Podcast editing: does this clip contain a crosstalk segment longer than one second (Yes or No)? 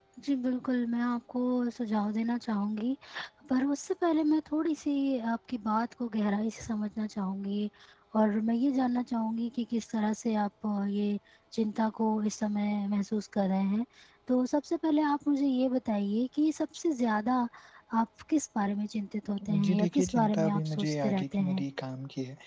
Yes